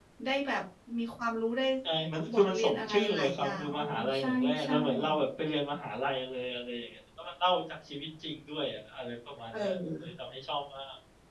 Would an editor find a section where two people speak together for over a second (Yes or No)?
Yes